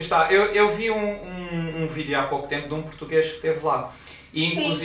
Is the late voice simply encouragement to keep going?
No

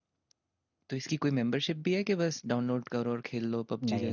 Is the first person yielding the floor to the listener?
Yes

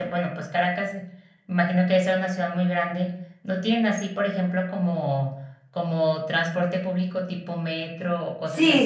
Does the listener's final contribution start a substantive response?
Yes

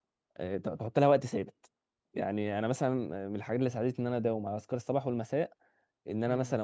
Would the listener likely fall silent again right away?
Yes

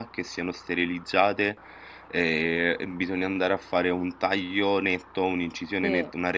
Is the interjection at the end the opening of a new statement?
No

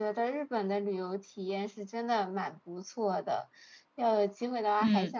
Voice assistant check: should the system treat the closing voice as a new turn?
No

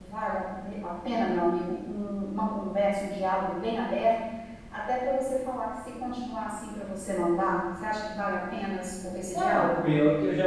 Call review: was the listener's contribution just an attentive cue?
No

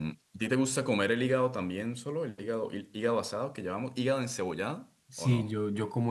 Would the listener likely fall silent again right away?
No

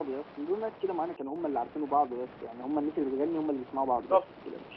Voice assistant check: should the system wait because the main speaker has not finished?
No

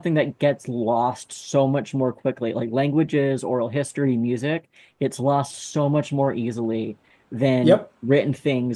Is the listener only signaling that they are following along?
Yes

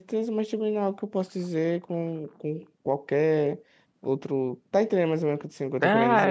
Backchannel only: No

